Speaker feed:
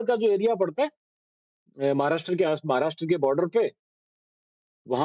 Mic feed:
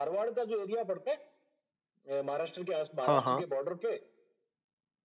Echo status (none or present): present